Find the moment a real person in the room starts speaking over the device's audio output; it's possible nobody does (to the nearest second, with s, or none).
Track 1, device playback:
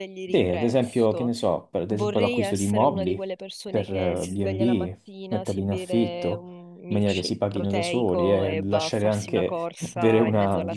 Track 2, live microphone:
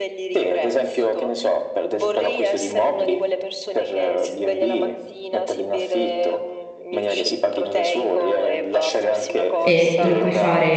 10 s